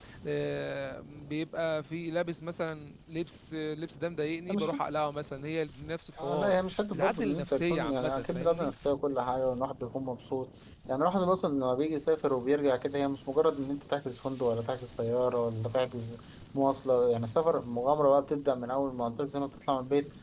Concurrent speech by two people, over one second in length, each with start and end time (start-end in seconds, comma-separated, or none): 6.9-8.7